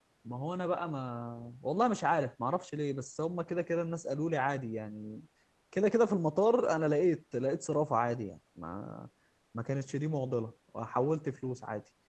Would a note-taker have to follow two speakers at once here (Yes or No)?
No